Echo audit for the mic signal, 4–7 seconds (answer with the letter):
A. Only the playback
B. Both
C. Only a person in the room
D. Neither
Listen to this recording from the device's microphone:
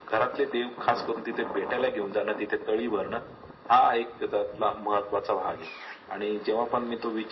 A